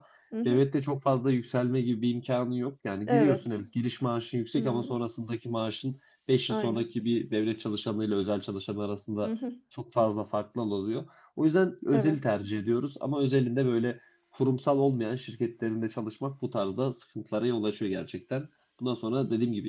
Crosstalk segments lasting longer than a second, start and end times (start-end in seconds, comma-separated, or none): none